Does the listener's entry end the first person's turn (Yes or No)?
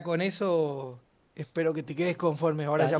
Yes